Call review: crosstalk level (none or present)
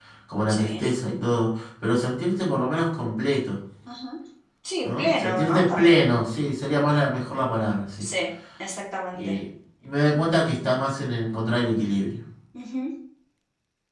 present